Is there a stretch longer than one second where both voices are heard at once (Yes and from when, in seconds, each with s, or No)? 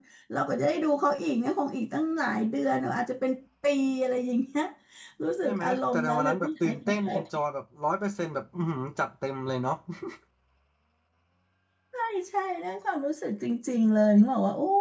Yes, from 5.4 s